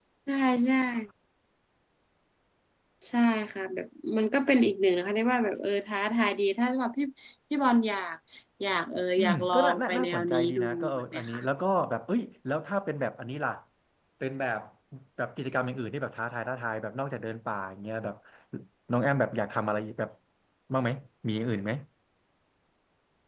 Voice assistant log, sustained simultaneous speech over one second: present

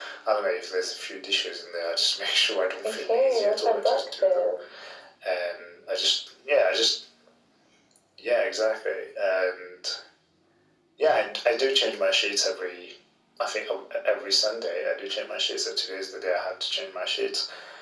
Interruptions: present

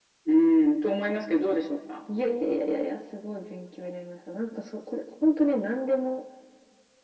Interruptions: none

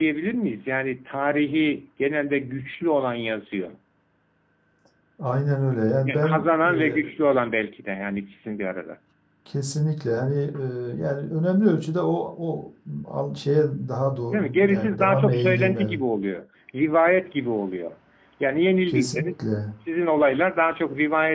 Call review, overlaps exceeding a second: present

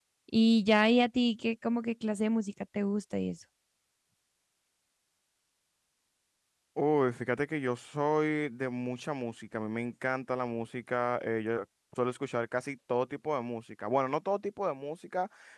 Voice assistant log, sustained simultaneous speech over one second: none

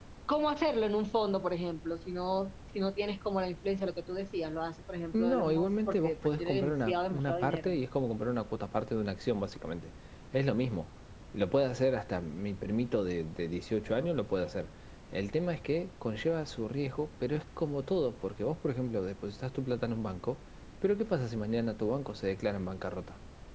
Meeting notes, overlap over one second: present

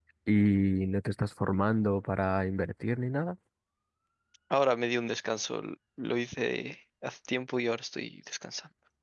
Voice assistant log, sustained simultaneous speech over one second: none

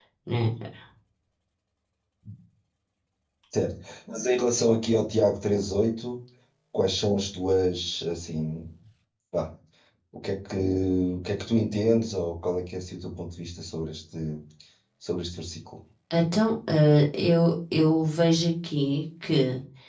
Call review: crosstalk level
none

